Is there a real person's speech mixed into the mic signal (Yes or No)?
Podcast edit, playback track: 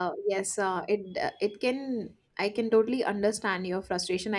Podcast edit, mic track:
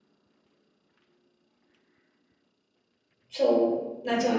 Yes